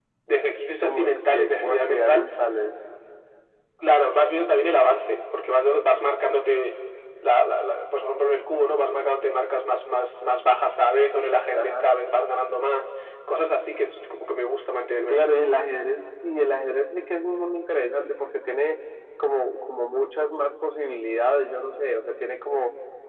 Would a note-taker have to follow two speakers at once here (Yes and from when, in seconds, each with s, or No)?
Yes, from 0.8 s